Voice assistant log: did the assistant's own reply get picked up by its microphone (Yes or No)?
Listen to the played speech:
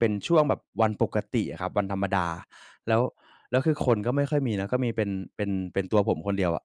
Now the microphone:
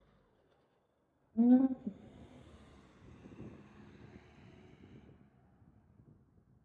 No